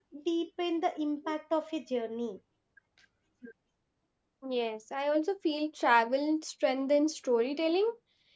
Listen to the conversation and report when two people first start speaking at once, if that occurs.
none

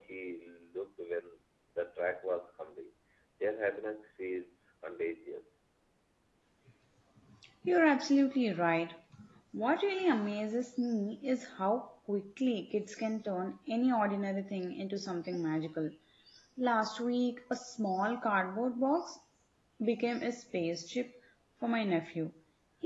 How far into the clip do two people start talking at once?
none

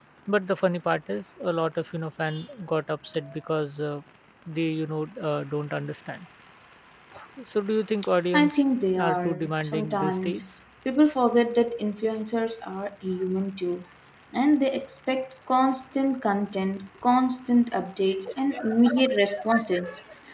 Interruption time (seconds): 8.3 s

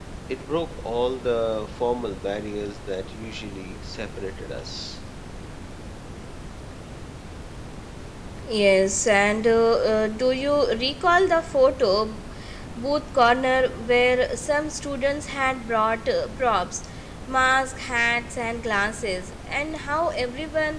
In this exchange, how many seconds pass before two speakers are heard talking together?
none

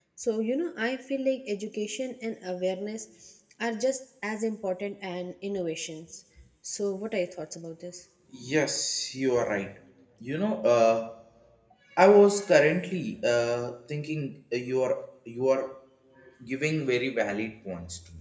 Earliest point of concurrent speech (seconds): none

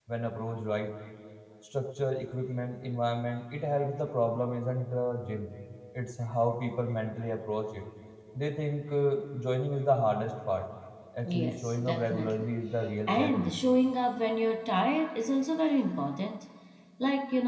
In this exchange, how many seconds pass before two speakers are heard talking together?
11.2 s

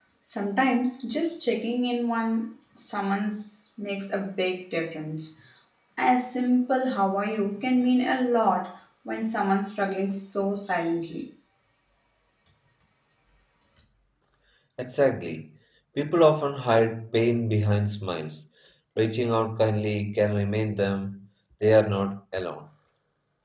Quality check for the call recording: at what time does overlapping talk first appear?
none

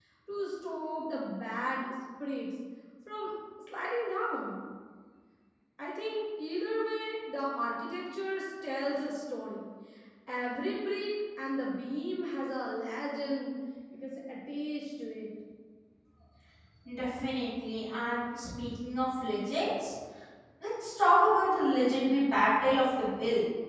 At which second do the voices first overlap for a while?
none

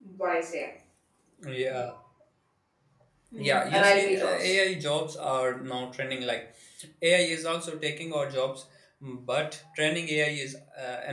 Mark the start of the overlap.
3.4 s

